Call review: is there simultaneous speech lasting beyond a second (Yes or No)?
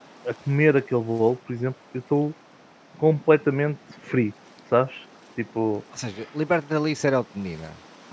No